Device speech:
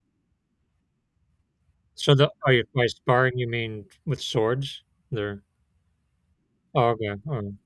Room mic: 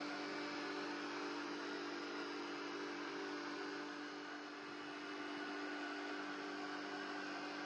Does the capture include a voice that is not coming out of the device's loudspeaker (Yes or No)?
No